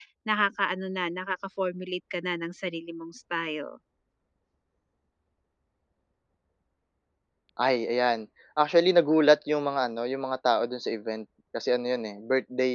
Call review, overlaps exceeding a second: none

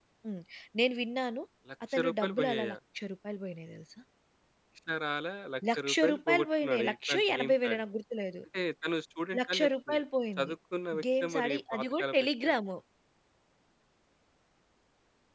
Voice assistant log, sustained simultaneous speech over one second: present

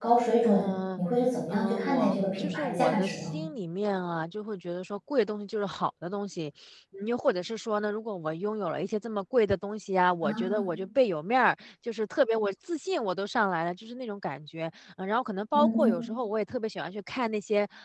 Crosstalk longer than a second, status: present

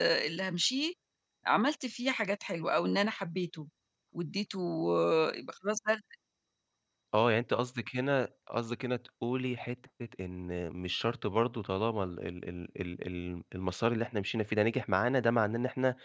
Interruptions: none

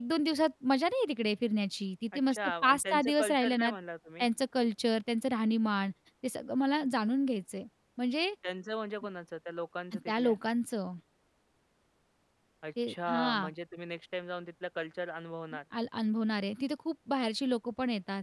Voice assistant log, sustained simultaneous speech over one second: present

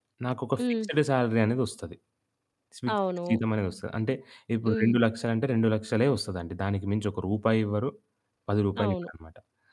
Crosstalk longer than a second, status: none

